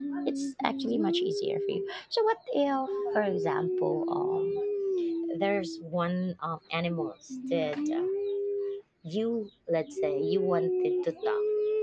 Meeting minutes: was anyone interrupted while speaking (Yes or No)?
No